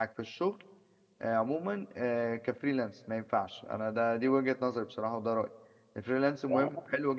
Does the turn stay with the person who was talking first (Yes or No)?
Yes